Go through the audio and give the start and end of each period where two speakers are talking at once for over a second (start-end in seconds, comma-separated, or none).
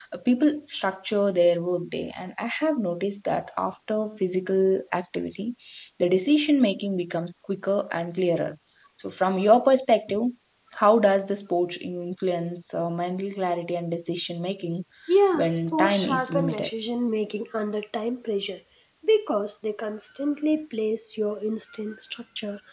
15.3-16.7